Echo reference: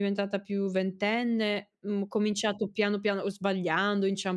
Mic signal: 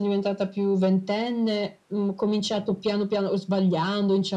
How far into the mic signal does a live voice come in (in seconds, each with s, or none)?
none